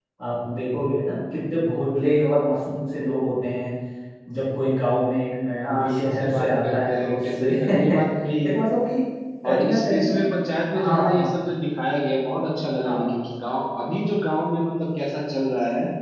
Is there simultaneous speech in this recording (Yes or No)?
Yes